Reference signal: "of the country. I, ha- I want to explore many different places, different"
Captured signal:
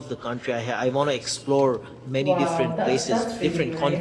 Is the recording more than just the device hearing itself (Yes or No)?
Yes